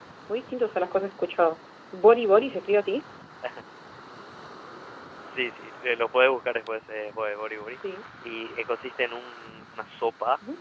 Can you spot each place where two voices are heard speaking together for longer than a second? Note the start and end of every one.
none

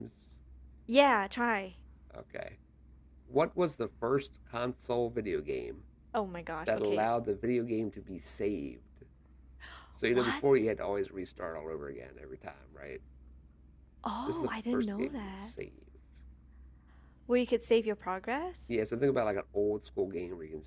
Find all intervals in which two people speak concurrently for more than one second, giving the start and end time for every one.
14.3-15.5

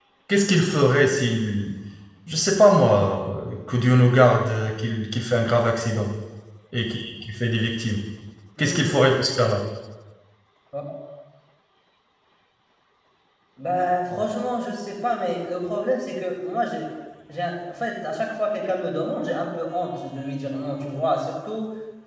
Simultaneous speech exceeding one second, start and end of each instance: none

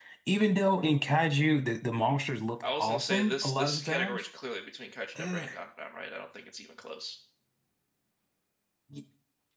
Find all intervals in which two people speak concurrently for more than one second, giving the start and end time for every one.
2.8-4.2

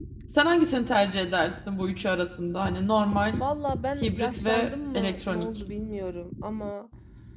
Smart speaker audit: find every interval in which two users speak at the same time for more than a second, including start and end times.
4.0-5.5

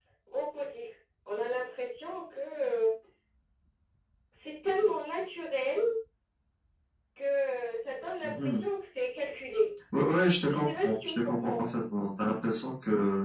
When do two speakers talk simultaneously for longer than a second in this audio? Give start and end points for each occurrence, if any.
10.4-11.7

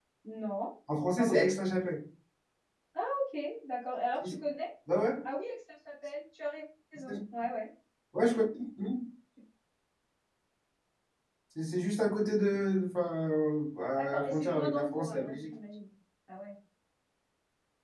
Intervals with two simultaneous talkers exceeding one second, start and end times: 14.0-15.5

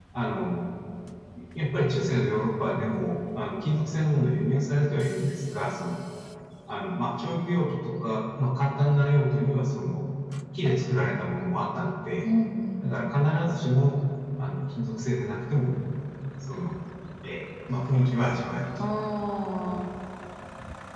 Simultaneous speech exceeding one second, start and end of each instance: none

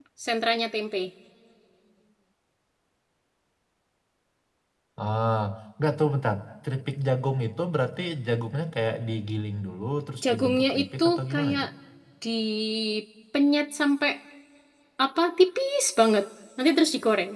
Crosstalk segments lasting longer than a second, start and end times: 10.3-11.7

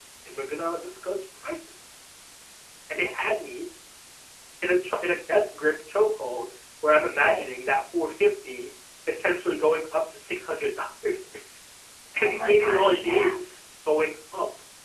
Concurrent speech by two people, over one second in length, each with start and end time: 12.2-13.5

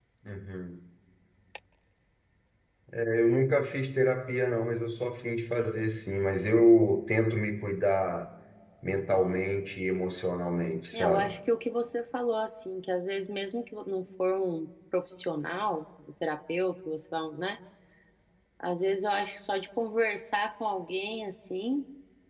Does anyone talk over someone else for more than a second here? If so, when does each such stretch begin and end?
none

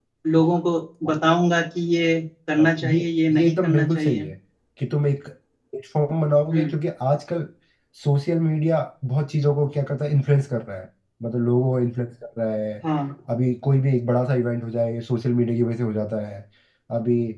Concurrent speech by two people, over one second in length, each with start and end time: 2.6-4.3

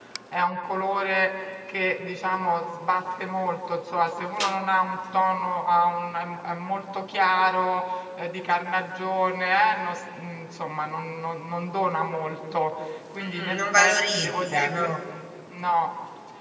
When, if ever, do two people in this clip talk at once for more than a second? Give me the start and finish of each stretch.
13.2-14.9

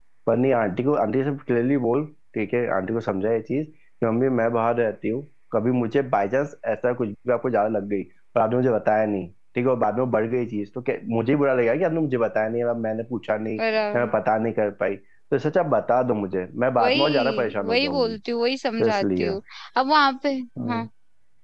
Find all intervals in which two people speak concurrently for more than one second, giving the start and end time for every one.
16.8-18.1

